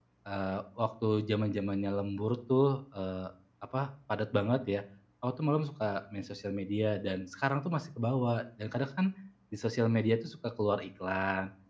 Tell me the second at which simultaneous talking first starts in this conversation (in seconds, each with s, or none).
none